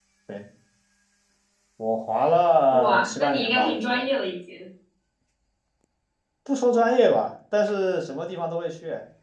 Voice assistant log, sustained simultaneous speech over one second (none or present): present